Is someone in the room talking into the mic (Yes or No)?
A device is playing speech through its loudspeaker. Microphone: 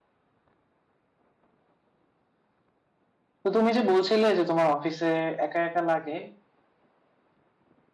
Yes